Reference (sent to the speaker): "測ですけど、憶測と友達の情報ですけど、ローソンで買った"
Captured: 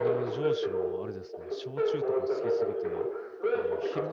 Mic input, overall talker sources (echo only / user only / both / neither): both